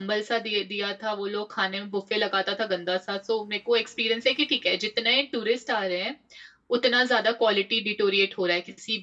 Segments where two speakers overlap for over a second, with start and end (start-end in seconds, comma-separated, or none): none